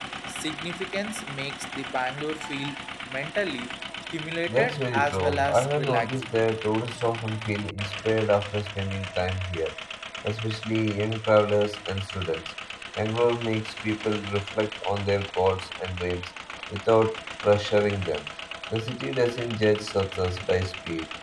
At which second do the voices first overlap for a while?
4.5 s

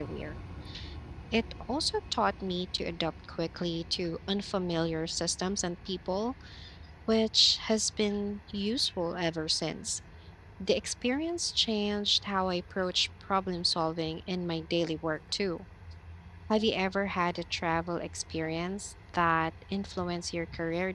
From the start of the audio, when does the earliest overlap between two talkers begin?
none

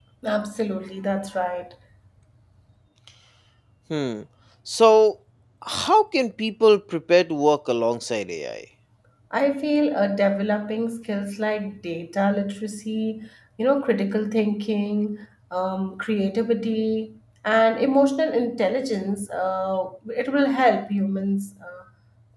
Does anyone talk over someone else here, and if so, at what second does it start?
none

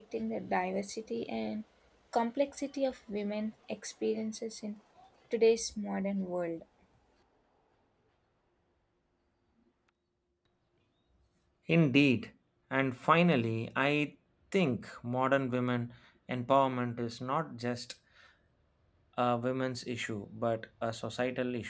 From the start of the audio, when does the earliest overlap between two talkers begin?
none

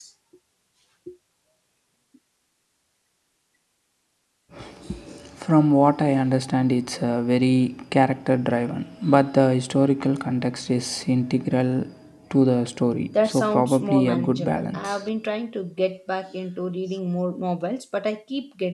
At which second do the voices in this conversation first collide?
13.1 s

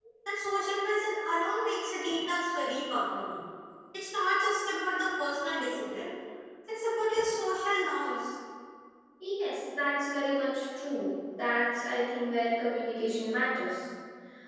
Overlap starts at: none

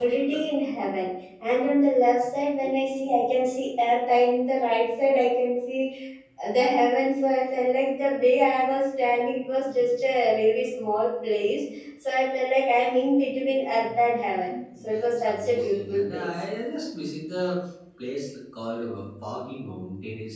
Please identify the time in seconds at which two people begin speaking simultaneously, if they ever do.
14.8 s

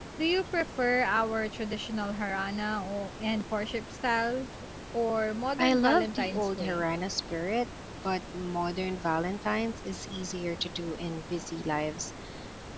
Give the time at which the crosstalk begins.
5.6 s

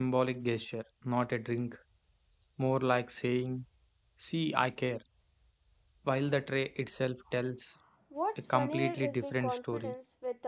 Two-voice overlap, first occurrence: 8.5 s

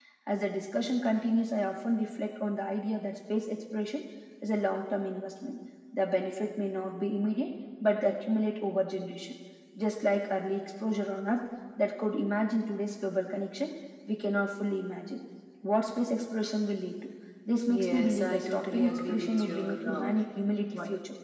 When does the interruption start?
17.7 s

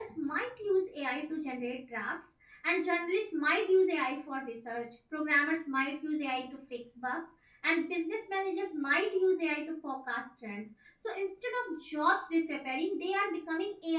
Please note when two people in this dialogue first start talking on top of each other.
none

